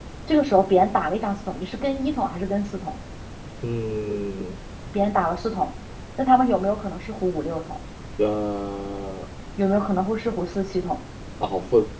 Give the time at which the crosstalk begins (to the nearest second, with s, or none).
none